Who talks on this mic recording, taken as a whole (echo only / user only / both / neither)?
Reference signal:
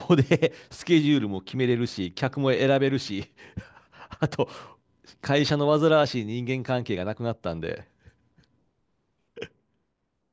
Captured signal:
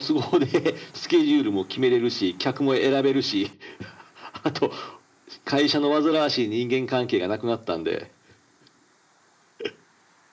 echo only